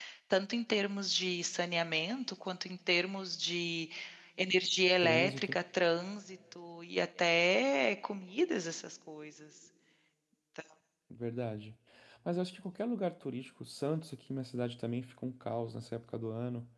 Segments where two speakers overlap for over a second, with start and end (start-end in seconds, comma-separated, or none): none